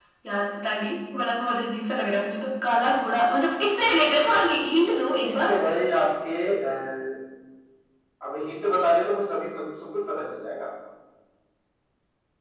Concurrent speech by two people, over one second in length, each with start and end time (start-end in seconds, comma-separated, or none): none